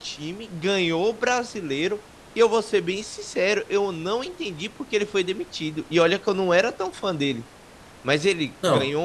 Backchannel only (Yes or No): Yes